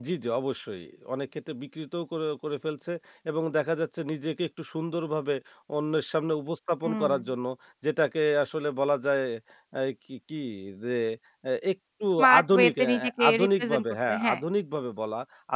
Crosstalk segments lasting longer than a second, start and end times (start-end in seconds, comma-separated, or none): 12.2-14.4